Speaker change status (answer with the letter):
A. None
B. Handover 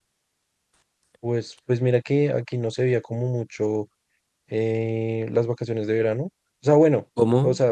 A